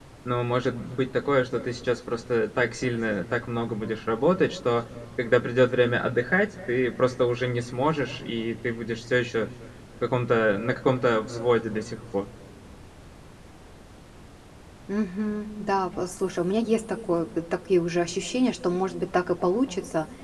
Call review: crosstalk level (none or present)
none